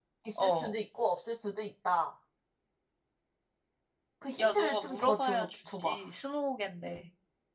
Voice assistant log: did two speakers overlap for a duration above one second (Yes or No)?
Yes